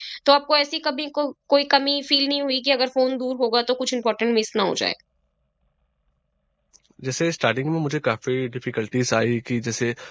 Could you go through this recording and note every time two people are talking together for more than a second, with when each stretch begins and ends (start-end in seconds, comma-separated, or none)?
none